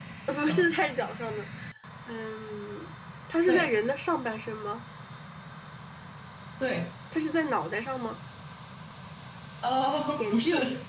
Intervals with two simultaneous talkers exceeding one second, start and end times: none

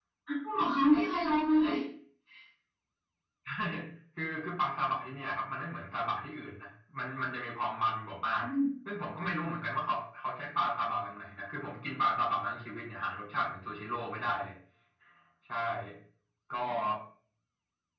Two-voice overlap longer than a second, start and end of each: none

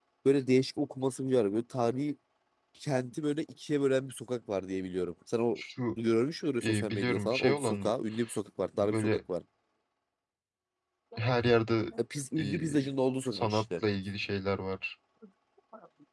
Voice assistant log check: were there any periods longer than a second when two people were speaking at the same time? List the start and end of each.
6.6-7.9

